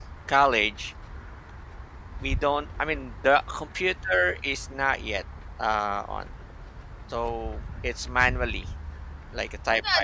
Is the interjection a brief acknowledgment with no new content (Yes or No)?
No